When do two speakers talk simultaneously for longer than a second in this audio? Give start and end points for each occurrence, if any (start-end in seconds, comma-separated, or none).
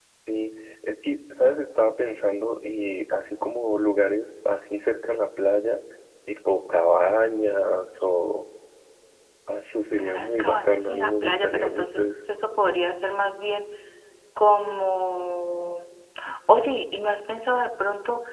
10.0-12.0